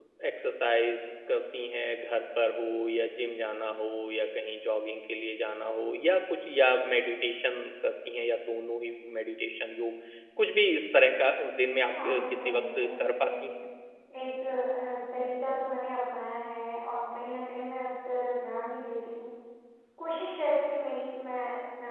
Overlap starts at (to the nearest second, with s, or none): 12 s